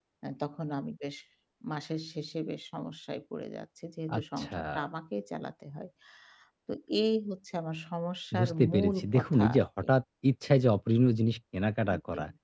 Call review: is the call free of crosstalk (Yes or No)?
No